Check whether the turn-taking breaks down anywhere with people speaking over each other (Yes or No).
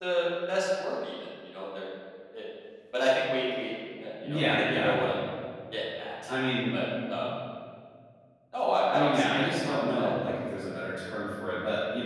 Yes